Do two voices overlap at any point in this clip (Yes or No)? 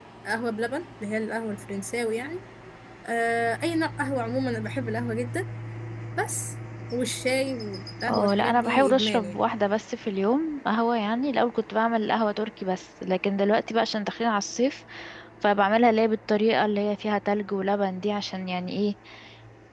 Yes